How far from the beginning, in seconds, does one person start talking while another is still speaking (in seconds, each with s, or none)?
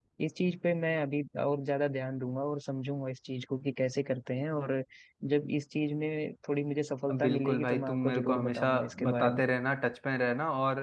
7.1 s